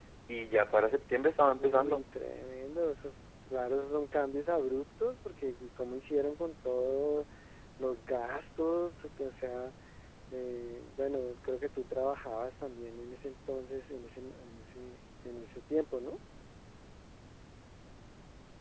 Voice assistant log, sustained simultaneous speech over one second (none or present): none